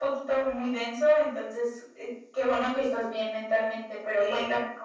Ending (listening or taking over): listening